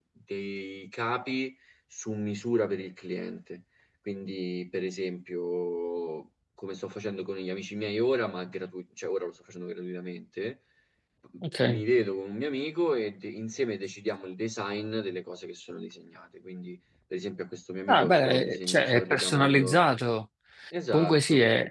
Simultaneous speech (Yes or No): Yes